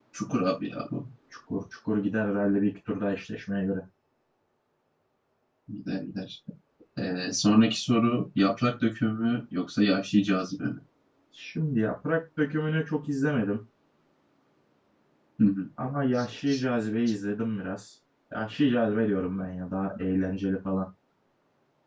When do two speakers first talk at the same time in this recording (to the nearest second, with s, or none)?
none